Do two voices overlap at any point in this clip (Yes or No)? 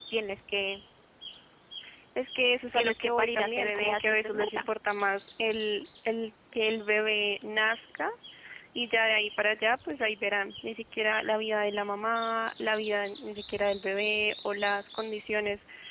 Yes